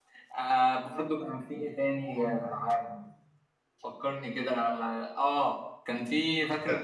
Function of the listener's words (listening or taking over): listening